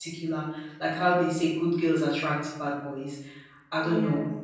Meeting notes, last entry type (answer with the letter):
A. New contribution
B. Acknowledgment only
B